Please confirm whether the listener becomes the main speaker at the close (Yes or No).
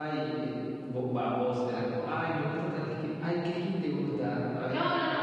Yes